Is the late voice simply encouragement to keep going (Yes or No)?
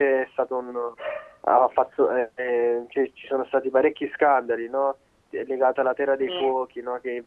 Yes